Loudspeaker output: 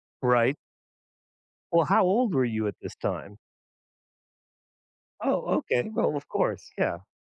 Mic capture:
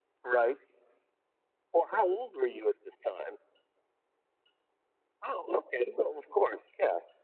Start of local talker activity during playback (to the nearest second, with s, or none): none